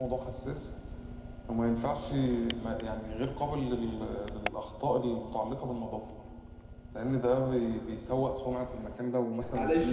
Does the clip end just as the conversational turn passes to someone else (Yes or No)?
Yes